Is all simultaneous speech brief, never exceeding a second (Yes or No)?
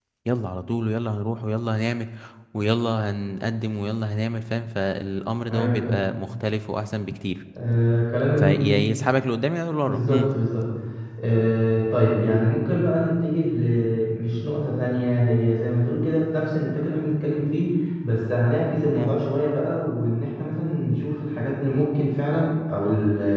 Yes